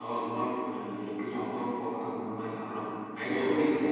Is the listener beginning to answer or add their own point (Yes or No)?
No